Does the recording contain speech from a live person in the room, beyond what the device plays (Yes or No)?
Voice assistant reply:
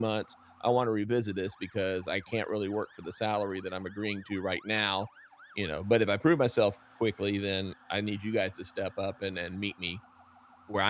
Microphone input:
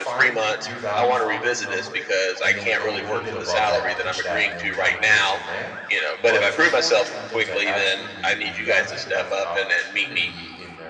Yes